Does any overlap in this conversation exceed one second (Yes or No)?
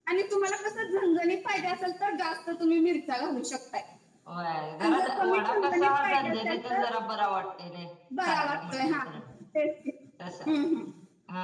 Yes